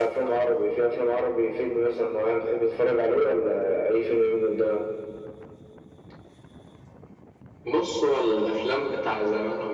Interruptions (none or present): none